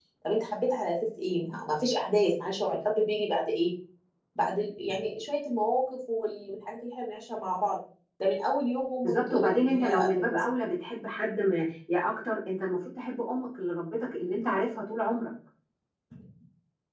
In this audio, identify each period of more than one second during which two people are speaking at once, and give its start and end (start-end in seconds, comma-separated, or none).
9.0-10.4